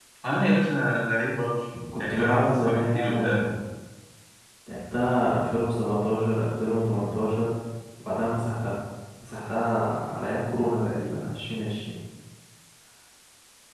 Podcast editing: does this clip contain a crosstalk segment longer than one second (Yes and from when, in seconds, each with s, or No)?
Yes, from 1.7 s